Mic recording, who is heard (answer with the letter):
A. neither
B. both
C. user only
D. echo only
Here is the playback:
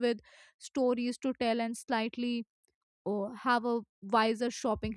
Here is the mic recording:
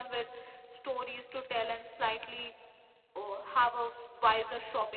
D